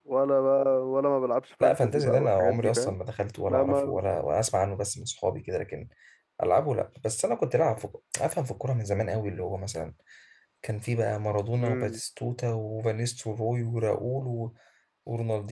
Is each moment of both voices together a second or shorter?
No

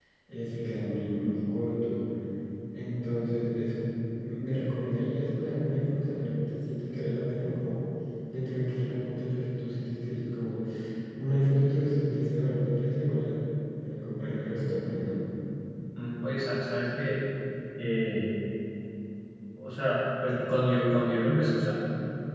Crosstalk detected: No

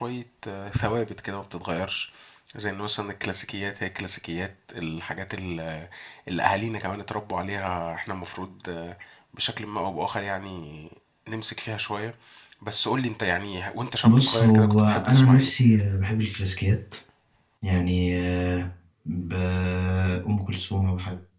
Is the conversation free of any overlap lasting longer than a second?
No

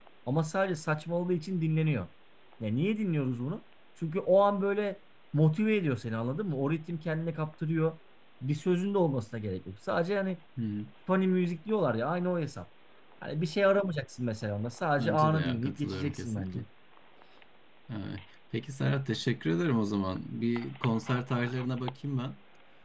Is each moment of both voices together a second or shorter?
No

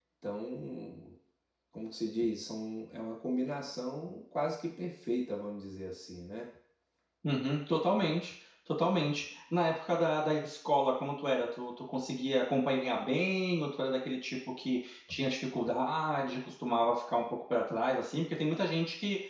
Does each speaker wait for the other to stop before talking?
Yes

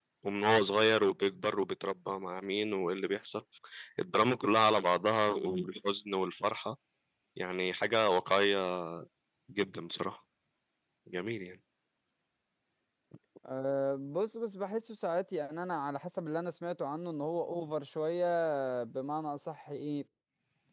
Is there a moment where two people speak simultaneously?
No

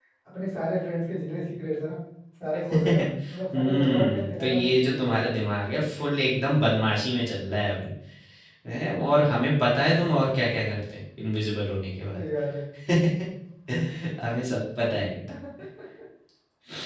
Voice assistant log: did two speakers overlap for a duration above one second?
Yes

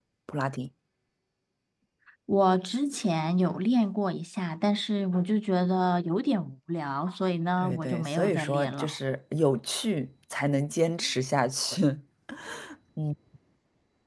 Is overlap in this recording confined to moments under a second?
No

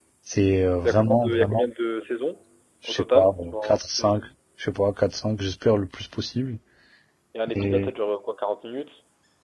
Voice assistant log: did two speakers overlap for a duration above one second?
Yes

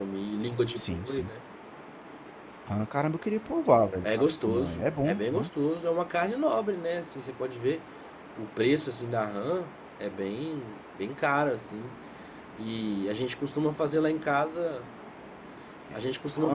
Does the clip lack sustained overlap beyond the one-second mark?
No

